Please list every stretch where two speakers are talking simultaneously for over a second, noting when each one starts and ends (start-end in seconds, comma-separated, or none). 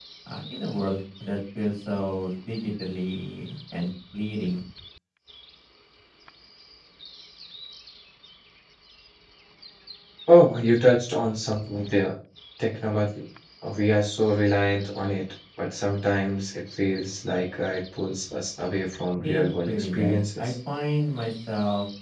19.2-20.5